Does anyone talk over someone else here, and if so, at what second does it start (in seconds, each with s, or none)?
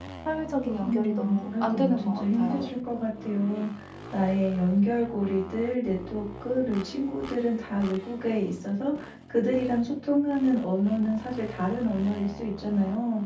0.8 s